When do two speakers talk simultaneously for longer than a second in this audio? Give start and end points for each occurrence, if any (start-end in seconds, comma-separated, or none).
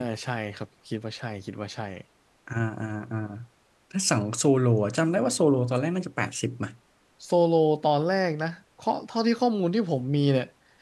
none